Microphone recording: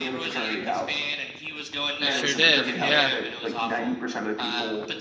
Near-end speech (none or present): present